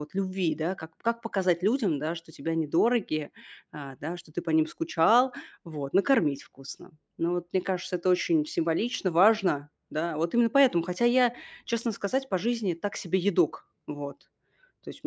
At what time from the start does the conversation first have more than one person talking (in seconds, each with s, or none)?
none